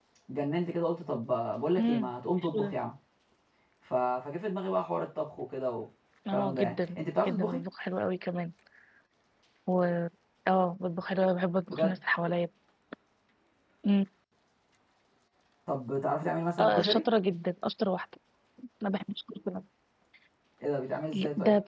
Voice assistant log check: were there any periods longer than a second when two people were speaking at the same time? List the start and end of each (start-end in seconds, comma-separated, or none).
6.3-7.6